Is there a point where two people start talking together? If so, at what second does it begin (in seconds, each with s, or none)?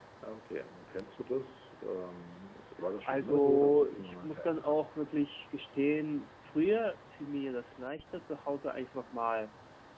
2.9 s